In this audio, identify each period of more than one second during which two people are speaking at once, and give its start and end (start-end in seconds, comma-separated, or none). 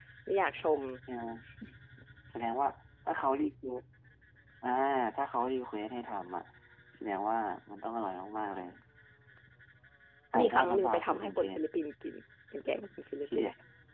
10.4-11.6